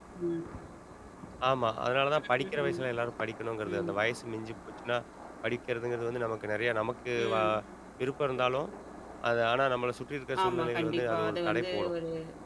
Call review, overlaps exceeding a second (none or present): present